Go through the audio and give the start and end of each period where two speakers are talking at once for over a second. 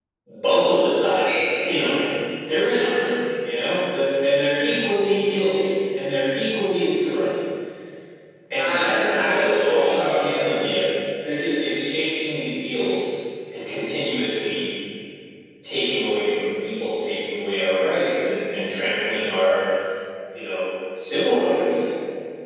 8.6-10.1

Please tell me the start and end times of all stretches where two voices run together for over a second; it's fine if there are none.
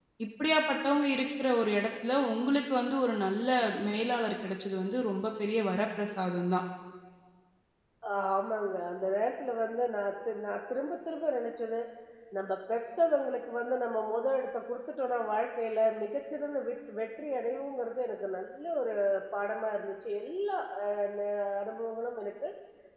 none

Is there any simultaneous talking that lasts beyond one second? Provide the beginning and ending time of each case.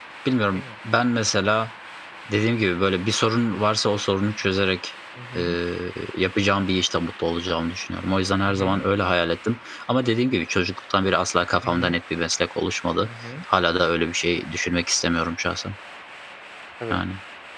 none

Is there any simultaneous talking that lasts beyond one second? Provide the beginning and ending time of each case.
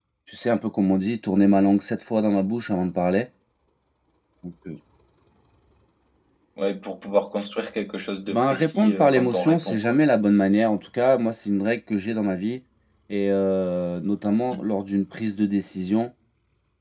8.3-9.9

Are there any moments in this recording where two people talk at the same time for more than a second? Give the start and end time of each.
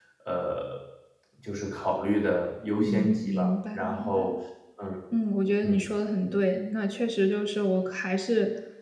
2.8-4.3

